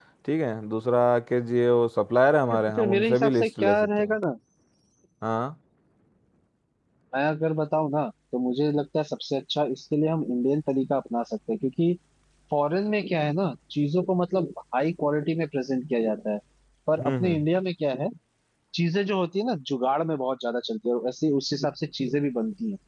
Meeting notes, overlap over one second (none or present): present